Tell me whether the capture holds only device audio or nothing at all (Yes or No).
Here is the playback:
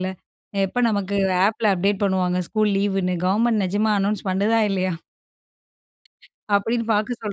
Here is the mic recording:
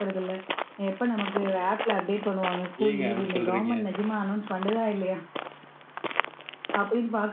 No